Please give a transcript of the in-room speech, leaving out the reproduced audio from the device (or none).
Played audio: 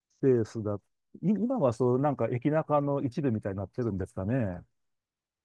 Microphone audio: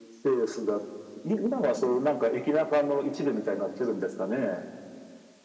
none